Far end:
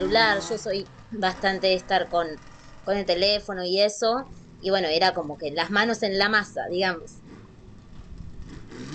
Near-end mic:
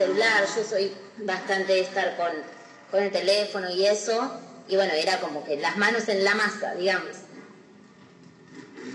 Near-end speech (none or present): none